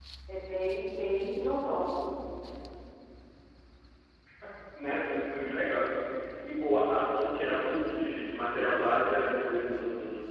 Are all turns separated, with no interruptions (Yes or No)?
Yes